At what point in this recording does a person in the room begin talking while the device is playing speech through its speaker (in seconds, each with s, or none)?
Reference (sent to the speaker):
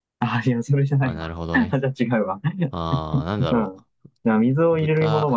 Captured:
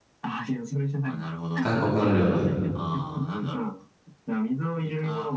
1.6 s